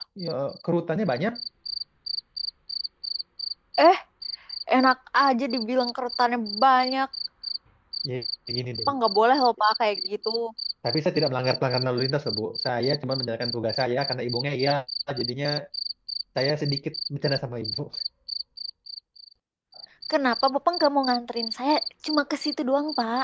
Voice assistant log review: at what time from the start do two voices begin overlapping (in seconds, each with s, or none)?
none